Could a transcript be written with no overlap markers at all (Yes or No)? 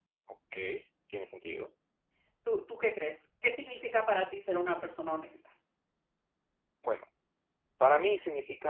Yes